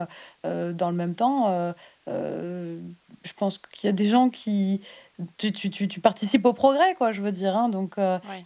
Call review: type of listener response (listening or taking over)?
listening